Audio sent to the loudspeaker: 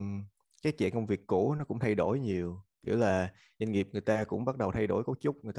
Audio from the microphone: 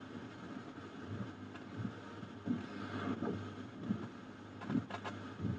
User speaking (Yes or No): No